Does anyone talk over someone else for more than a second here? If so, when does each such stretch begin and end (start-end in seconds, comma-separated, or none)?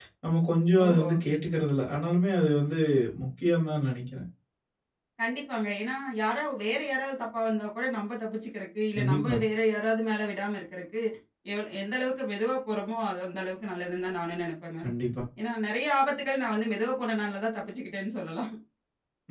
none